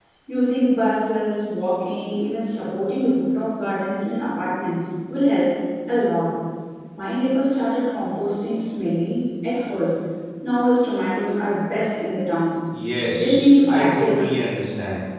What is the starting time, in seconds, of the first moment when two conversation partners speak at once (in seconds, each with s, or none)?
13.0 s